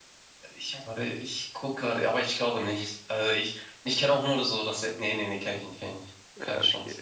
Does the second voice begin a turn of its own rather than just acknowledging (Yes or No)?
Yes